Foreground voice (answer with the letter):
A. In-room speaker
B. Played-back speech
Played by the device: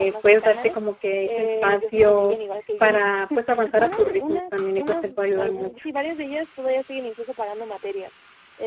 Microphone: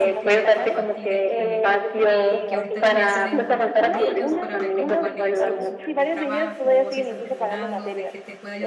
B